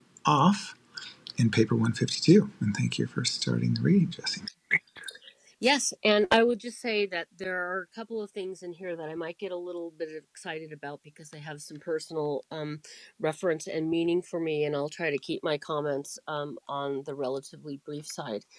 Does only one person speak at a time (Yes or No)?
Yes